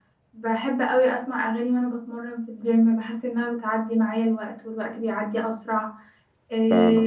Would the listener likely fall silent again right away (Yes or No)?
Yes